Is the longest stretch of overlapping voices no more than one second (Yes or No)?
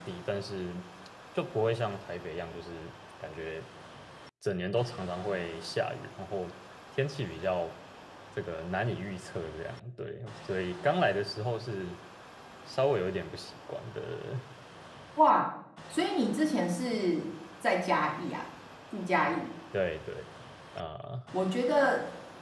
Yes